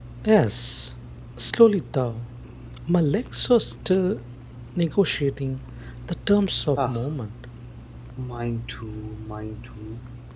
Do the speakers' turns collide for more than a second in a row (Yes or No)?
No